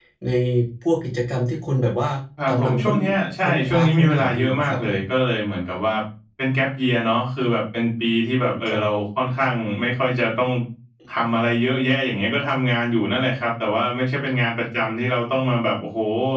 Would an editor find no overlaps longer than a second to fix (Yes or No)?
No